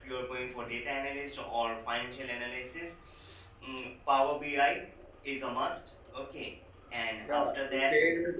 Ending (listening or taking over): taking over